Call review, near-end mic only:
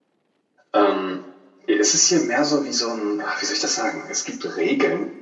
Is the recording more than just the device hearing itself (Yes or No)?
Yes